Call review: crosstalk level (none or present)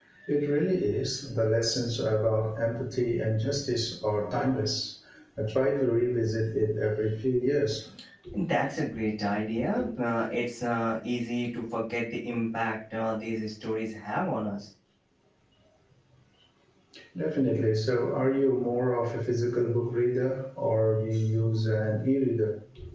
none